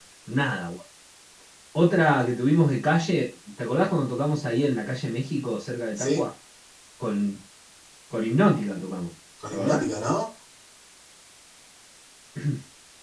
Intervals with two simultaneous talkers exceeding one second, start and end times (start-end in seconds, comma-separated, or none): none